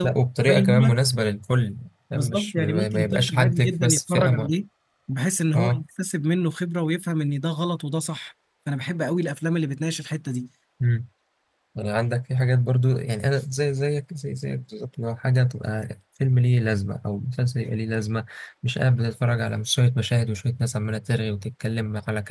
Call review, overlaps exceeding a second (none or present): present